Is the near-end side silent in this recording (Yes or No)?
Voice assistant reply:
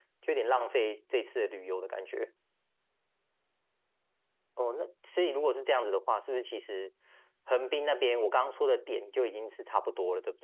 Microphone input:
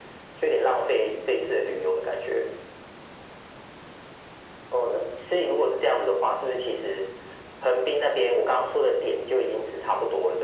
Yes